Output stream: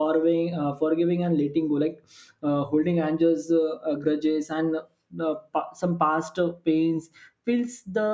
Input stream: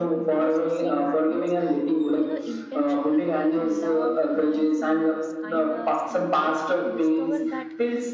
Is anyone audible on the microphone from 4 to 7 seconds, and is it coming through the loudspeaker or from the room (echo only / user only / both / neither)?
both